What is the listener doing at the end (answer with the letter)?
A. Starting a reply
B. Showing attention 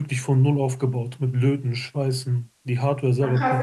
A